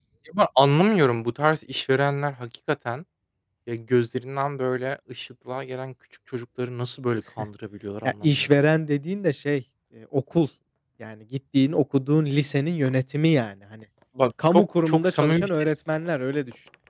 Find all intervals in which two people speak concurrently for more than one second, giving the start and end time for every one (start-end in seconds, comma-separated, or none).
14.5-15.7